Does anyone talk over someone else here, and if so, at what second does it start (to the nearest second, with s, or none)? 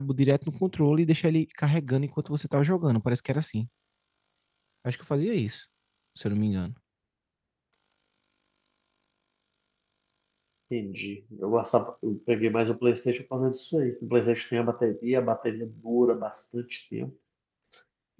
none